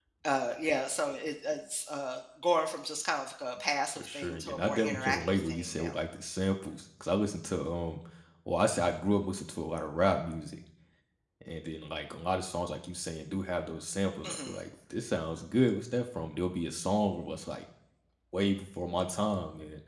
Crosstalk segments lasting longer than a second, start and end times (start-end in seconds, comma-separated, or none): 4.0-6.0